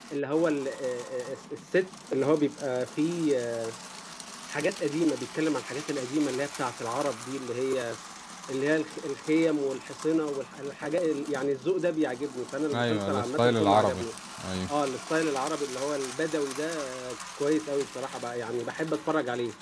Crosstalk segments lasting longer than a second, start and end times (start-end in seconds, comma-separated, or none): 12.7-14.0